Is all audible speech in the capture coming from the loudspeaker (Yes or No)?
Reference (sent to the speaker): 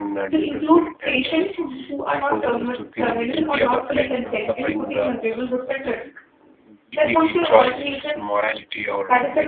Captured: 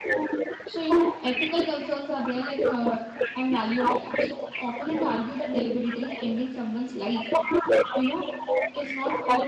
No